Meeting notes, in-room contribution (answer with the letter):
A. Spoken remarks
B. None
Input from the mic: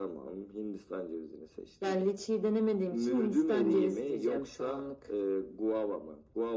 B